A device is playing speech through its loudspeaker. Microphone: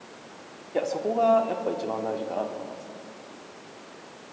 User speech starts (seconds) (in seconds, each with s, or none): 0.8 s